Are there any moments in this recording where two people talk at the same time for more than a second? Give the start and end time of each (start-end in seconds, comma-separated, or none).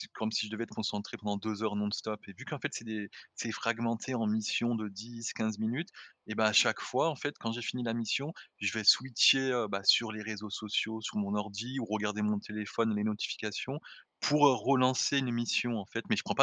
none